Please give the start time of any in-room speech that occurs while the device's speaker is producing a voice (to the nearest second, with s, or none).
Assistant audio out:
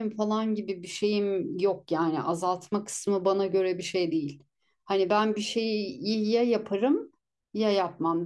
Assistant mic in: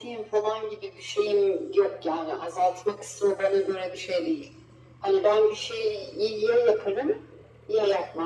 none